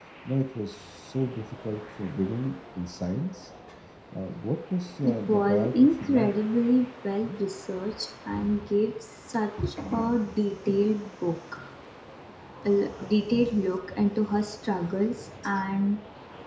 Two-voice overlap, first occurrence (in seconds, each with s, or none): 5.0 s